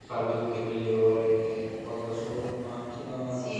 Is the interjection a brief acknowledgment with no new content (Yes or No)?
No